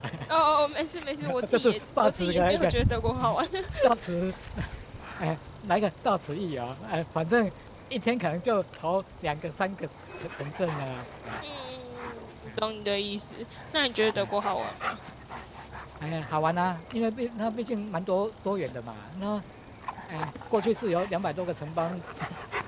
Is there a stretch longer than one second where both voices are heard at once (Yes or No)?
Yes